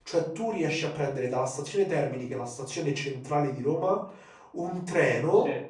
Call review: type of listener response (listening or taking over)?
listening